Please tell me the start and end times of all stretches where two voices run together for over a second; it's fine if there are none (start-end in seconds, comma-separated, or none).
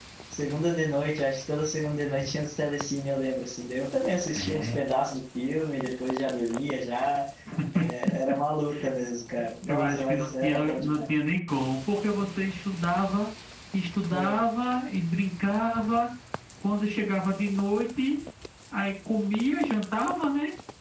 9.7-11.0